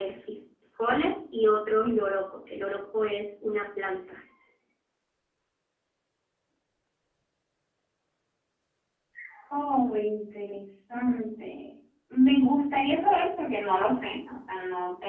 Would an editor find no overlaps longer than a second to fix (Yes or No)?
Yes